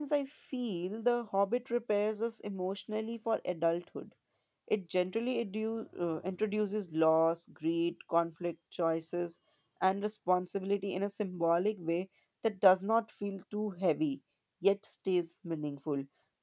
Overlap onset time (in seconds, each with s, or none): none